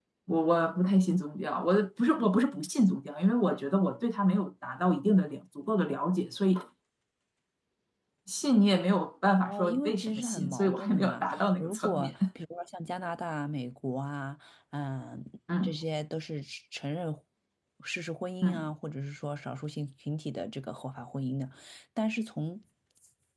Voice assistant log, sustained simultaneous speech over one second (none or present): present